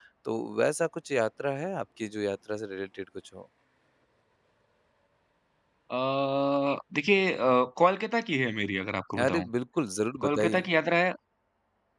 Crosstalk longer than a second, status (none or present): none